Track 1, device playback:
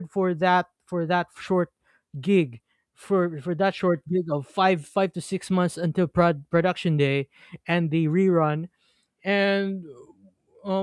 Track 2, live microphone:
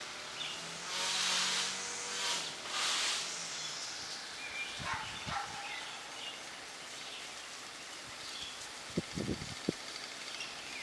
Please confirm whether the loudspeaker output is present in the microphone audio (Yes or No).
No